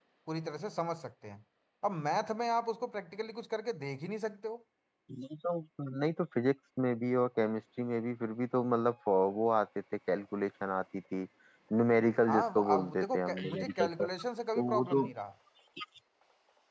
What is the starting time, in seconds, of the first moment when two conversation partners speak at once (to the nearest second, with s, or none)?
12 s